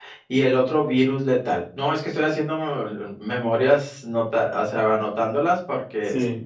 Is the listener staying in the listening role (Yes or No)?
No